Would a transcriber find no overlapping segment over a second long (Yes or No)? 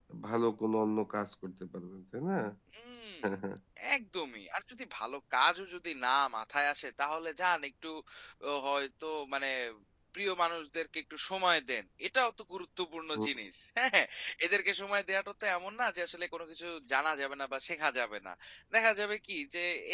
Yes